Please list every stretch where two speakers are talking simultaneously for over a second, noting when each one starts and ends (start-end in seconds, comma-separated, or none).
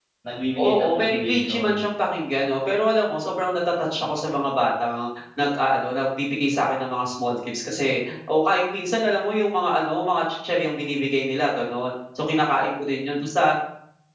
0.6-1.8